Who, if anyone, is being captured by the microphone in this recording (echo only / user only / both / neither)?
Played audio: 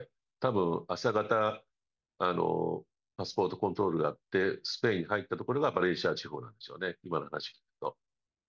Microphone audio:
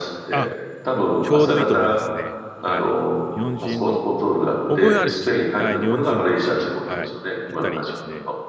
both